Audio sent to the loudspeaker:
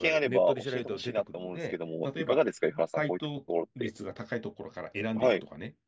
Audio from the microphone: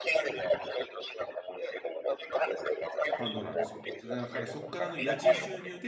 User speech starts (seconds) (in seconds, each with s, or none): 3.1 s